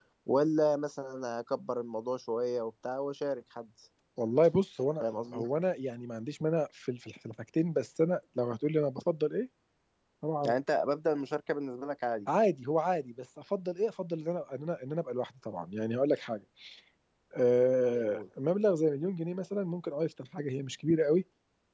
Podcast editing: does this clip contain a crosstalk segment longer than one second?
No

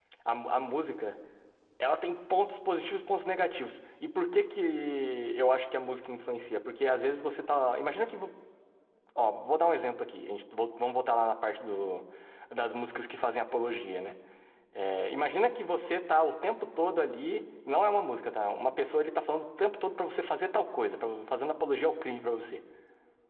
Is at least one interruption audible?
No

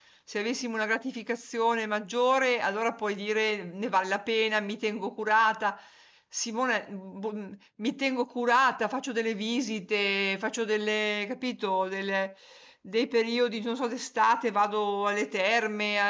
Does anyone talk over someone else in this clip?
No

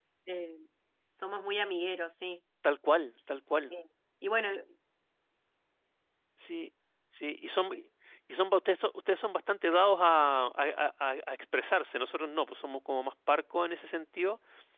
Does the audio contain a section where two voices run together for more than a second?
No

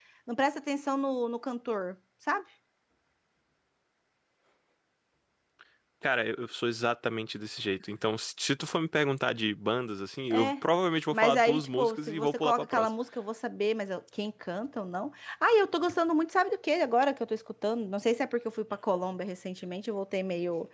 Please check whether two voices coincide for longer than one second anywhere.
Yes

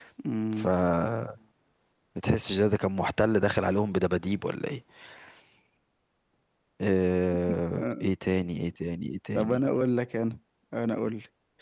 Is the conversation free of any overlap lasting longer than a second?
Yes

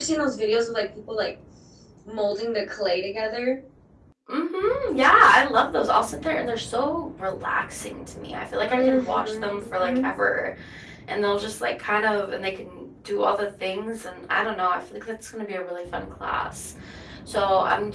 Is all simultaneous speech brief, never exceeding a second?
No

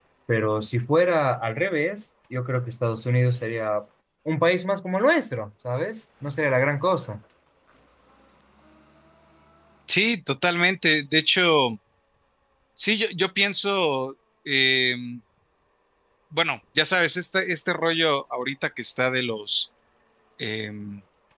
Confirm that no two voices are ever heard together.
Yes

